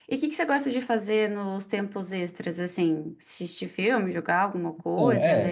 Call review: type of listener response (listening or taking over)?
taking over